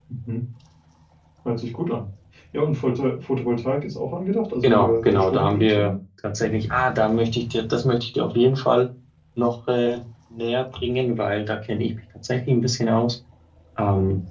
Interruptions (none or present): present